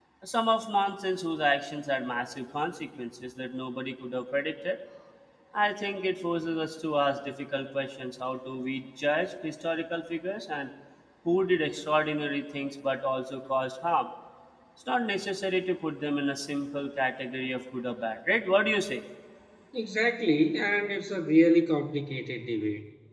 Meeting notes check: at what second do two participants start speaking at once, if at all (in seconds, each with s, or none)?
none